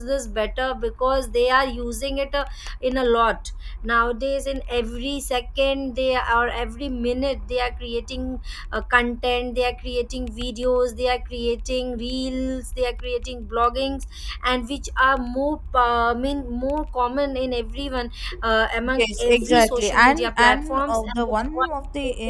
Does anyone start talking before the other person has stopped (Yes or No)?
Yes